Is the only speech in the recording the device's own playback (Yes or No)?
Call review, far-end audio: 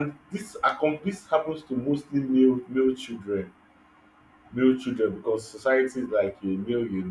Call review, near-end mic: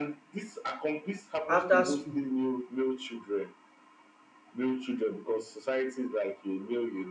No